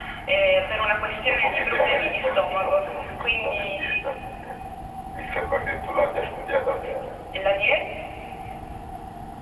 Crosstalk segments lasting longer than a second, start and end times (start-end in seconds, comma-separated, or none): 1.3-3.9